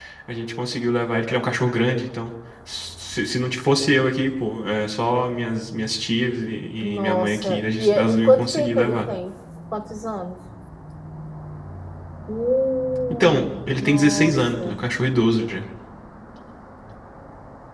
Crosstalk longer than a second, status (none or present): present